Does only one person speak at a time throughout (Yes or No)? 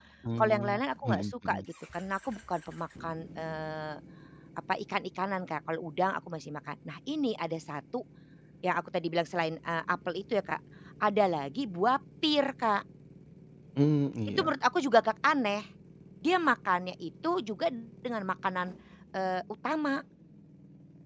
No